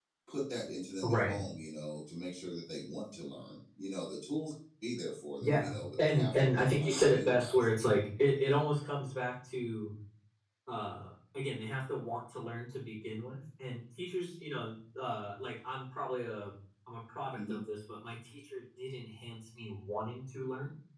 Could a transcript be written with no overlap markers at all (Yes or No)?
No